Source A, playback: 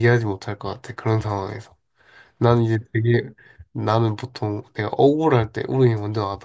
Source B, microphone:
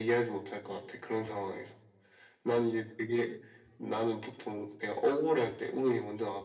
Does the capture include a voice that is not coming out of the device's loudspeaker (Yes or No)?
No